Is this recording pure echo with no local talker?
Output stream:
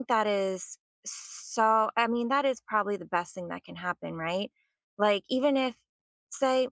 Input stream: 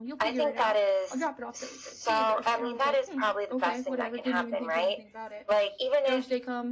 No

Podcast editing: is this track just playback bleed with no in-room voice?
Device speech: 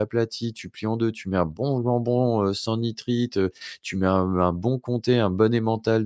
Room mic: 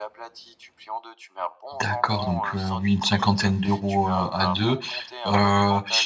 No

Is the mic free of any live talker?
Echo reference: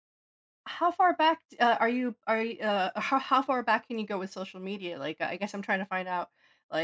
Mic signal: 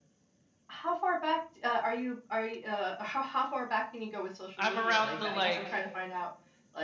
No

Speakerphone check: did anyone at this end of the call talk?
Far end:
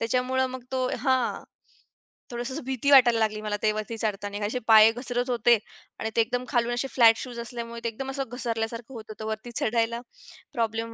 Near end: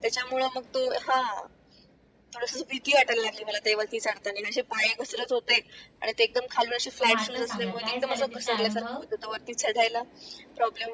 Yes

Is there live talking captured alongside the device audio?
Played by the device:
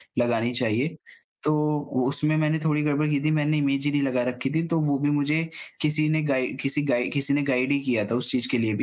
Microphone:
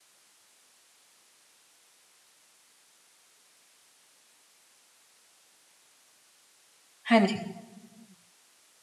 Yes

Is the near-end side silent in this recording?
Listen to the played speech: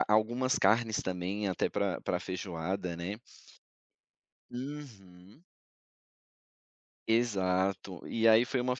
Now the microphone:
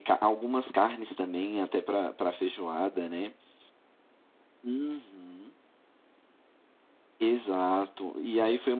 Yes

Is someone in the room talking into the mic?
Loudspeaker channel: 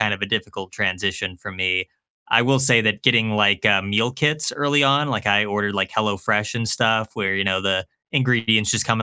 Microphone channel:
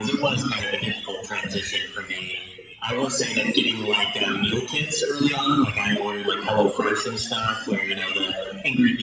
No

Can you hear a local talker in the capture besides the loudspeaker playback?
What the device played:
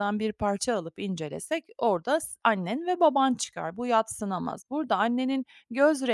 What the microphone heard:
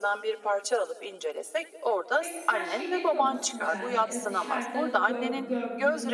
Yes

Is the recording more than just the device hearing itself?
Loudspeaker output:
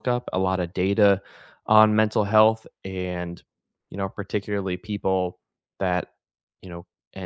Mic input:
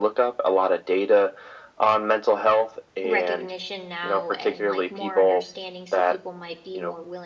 Yes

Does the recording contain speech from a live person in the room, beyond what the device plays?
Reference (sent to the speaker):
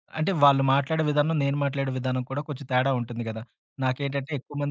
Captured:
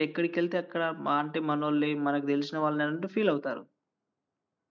Yes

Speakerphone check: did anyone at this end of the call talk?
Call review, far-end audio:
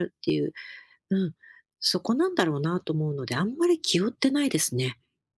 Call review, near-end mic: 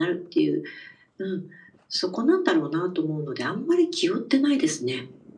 No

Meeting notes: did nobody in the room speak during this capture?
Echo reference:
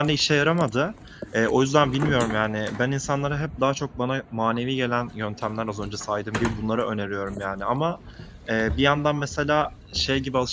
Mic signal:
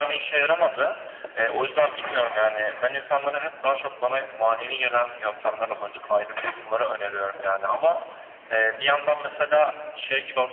Yes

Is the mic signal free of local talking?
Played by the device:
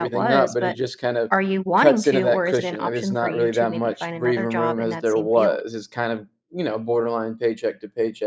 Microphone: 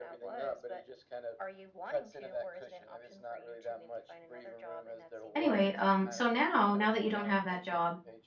No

